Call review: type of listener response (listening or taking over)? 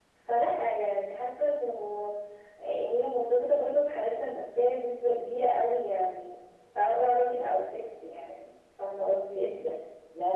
taking over